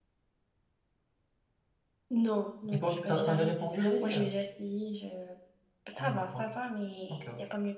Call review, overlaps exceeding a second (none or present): present